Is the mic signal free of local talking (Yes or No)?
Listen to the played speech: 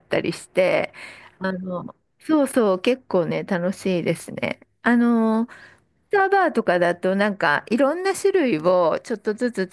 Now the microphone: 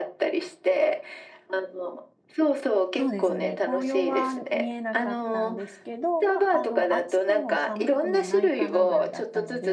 No